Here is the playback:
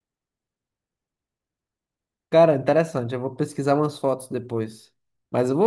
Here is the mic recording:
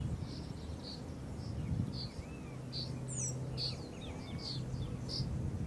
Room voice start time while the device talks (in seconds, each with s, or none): none